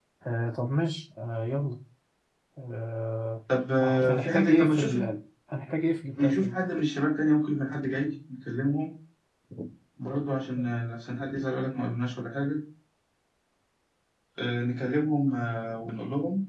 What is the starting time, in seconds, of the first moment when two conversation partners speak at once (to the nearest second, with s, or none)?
4 s